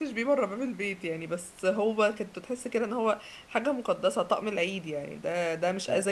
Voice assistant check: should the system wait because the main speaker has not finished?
Yes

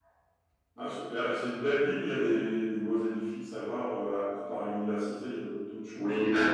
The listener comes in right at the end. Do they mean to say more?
Yes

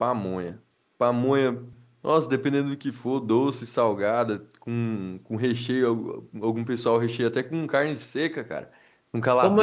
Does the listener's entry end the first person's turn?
Yes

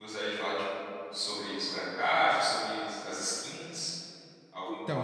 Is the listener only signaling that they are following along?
No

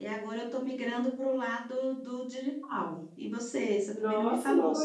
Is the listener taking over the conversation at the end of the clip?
Yes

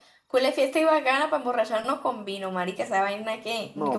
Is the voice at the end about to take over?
Yes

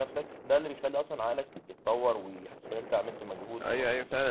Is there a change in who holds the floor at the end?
Yes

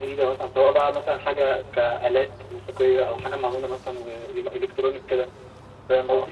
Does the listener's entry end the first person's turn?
Yes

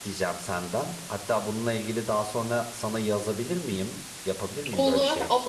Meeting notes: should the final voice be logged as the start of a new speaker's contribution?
Yes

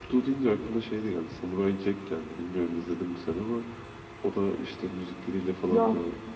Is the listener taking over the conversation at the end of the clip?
No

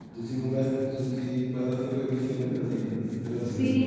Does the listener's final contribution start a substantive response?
Yes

